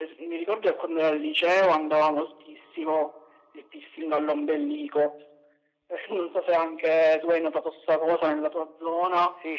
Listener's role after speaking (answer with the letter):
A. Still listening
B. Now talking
B